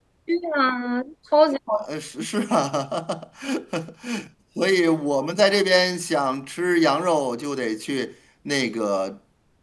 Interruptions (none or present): none